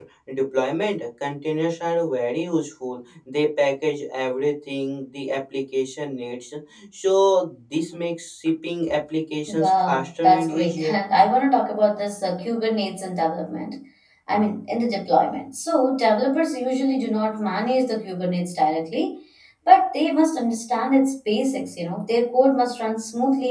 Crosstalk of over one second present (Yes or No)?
Yes